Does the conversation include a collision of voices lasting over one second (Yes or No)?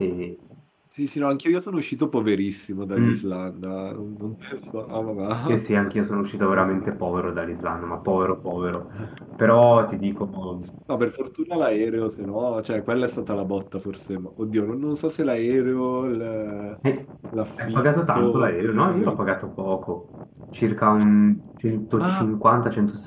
Yes